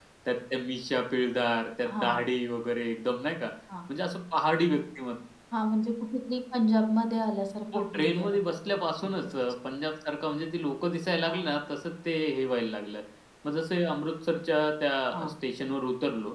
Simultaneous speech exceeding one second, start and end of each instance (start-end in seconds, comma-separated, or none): 7.7-9.4